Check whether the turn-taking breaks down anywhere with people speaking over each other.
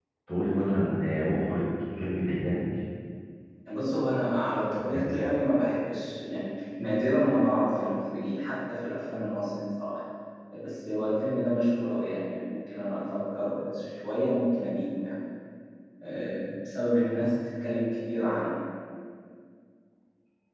No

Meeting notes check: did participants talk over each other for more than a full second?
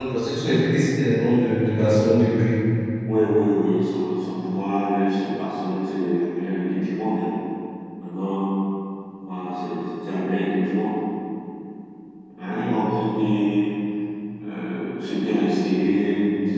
No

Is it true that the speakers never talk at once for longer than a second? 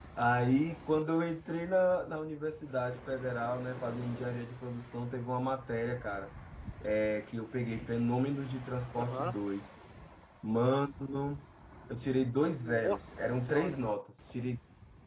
No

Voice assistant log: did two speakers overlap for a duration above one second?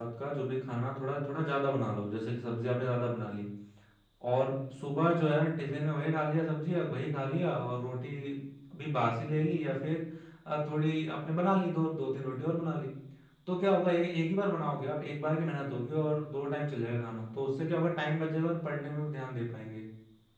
No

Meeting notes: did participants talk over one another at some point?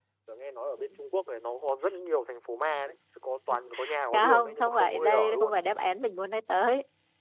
Yes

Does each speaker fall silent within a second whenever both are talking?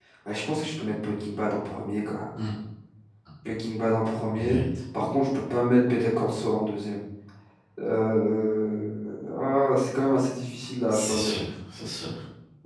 Yes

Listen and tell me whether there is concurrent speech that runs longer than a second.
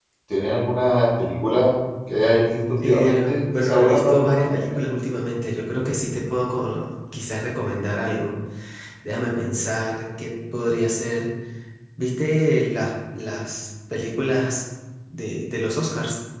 Yes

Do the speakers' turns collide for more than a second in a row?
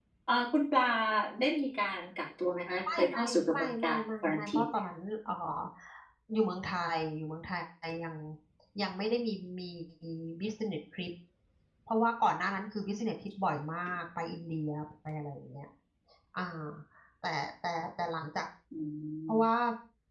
Yes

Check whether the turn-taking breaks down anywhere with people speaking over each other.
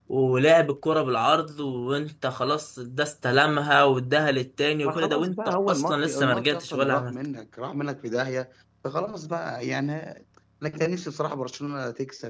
Yes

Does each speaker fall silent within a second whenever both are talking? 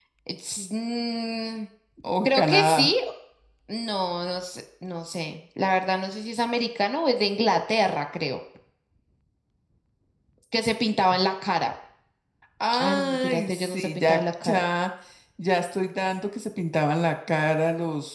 No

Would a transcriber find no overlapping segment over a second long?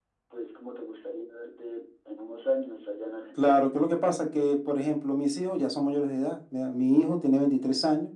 Yes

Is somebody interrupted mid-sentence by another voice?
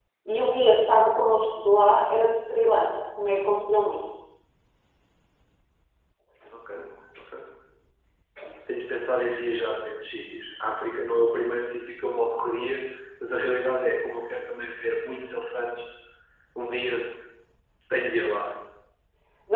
No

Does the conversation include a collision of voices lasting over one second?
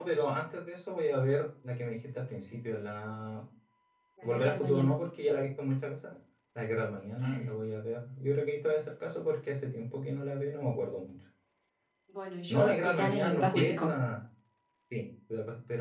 Yes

